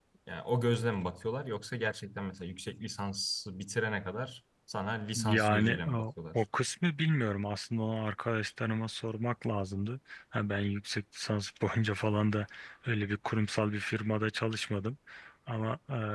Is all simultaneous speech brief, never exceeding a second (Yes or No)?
No